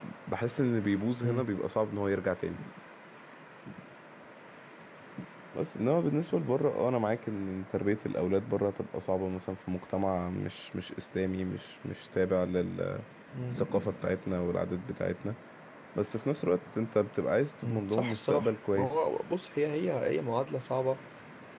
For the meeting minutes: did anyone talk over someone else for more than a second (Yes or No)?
Yes